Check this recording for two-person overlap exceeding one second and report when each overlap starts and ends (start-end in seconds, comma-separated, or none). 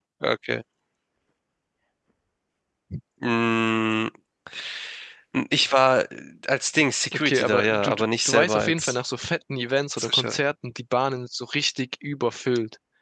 7.1-8.9